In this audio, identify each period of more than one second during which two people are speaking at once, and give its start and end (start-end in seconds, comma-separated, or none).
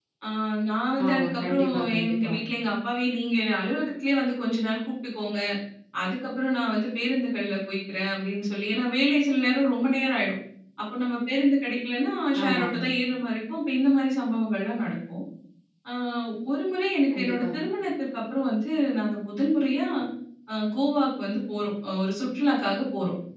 1.1-2.3